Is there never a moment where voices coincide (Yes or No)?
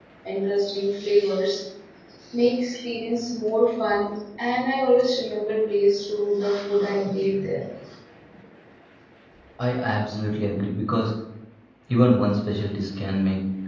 Yes